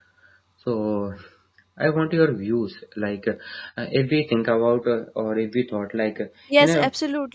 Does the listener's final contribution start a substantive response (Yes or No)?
Yes